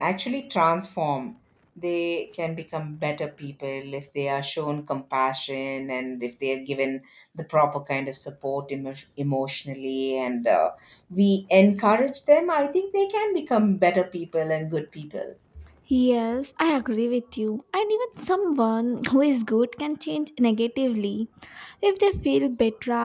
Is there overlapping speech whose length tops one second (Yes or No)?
No